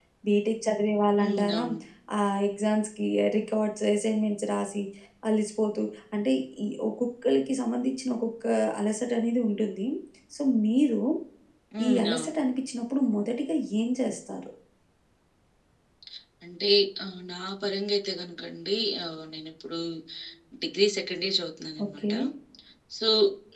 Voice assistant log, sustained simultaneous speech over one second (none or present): none